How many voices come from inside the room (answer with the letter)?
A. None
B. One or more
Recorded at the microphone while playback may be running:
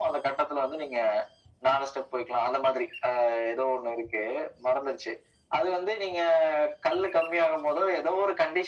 A